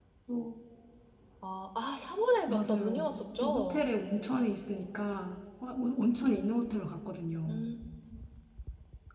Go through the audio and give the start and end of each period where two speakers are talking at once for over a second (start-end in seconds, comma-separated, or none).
2.5-3.9